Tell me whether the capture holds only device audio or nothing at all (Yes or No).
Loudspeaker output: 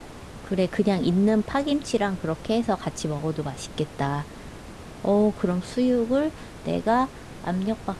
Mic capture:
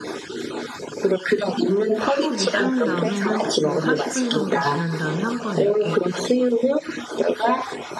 No